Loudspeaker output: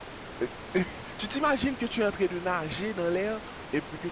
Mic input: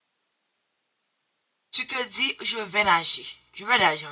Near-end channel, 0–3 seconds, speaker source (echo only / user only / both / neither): user only